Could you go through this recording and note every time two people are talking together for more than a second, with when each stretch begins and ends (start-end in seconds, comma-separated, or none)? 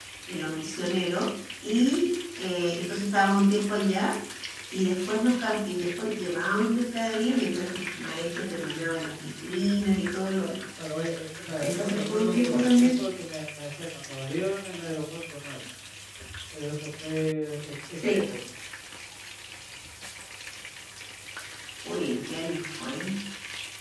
11.6-13.0